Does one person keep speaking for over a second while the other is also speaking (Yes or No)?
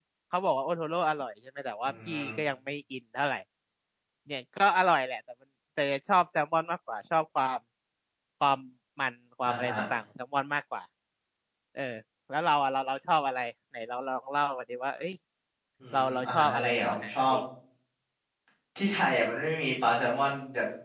Yes